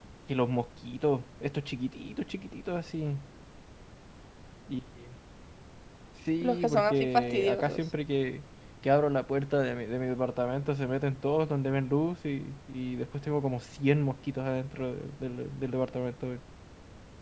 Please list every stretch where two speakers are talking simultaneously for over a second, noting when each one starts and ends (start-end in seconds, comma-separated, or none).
6.4-7.8